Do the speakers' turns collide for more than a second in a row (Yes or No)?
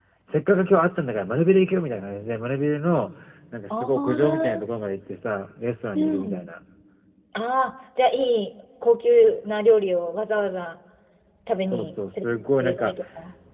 Yes